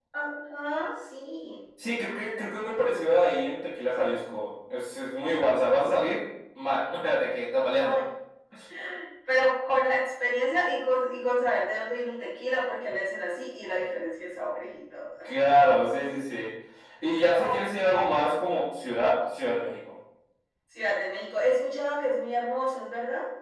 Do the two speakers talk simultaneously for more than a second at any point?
No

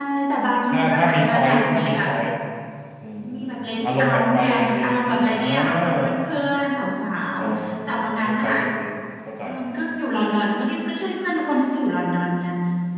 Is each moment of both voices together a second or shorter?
No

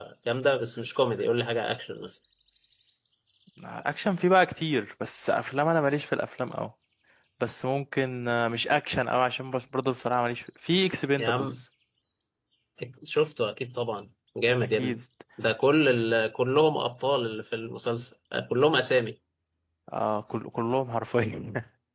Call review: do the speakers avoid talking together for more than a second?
Yes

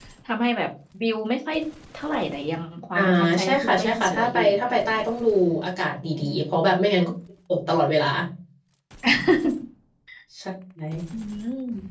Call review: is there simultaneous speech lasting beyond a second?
Yes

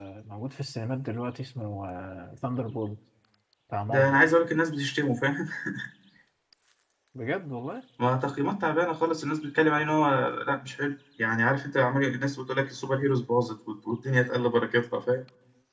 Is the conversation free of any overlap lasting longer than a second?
Yes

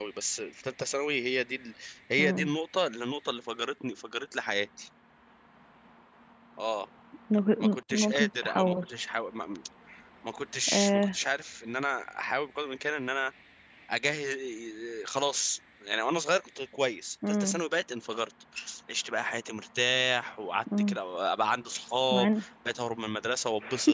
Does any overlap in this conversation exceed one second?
Yes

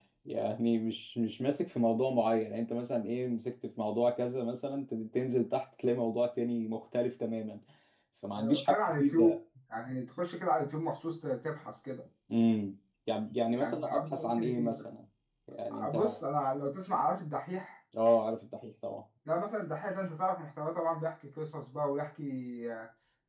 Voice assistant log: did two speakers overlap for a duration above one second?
Yes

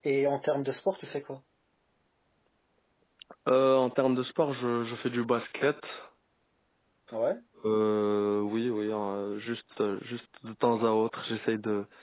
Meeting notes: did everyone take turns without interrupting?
Yes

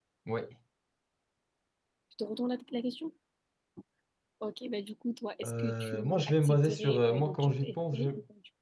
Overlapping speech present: Yes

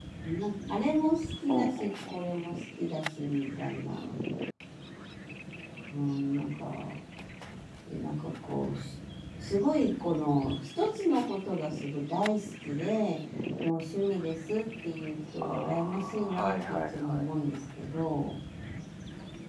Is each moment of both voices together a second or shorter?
No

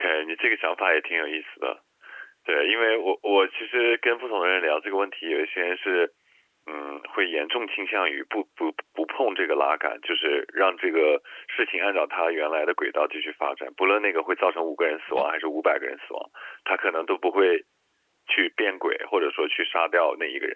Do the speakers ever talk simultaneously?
No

